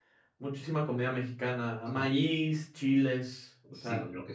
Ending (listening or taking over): taking over